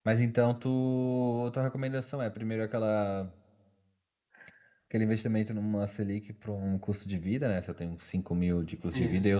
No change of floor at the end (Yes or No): Yes